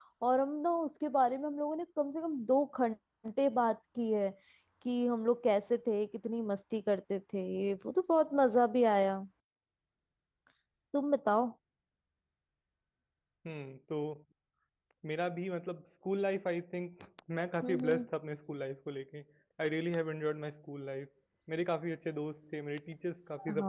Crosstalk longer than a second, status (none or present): none